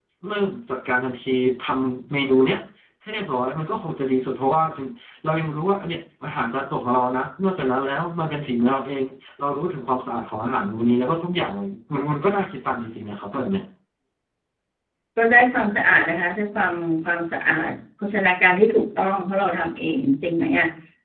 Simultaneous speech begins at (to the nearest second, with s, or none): none